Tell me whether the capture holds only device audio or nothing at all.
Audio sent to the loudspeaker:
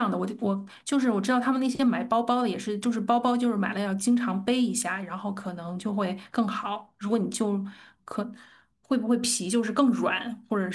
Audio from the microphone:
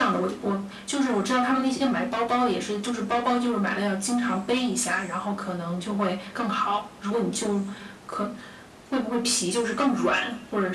Yes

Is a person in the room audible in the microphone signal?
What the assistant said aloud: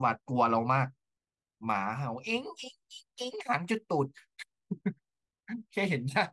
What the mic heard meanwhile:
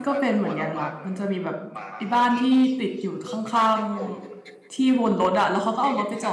Yes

